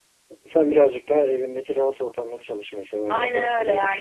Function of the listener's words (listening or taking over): taking over